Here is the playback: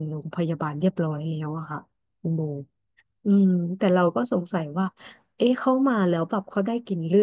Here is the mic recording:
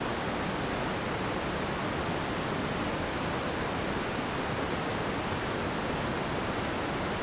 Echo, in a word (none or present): none